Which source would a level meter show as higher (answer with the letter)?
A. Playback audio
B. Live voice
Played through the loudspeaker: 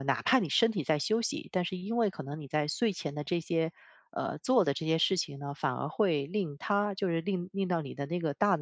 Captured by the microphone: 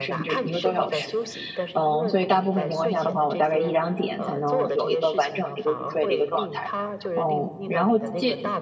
B